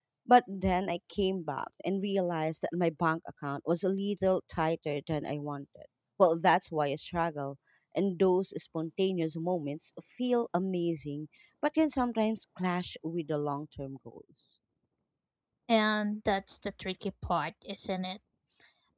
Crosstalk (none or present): none